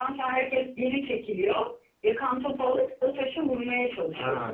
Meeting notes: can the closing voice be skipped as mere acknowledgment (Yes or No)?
No